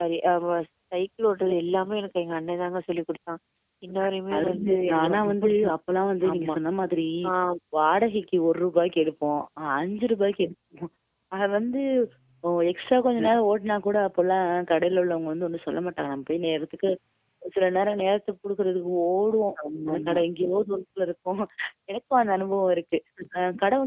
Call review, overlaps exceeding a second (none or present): present